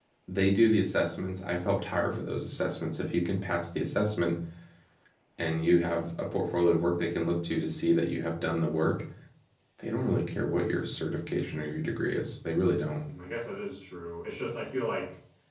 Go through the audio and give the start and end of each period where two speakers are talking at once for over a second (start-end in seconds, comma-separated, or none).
none